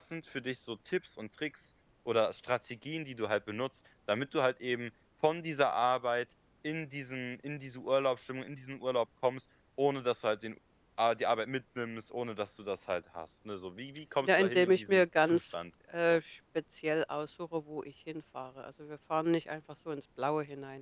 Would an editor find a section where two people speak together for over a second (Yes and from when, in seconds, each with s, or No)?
Yes, from 14.2 s